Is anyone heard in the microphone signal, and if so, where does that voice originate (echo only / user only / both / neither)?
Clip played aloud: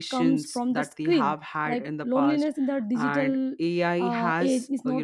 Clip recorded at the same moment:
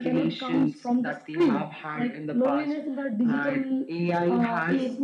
echo only